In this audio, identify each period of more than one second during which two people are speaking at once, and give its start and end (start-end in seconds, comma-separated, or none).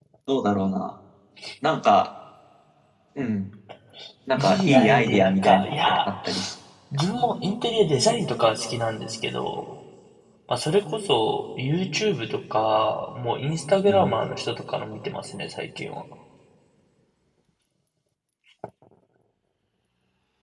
4.4-6.1